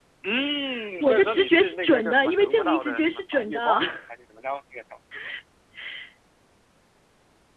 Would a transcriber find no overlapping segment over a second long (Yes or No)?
No